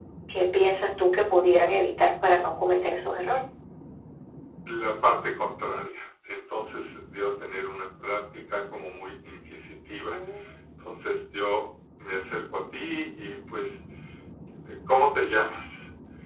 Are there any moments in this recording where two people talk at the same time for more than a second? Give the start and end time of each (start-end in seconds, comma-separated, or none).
none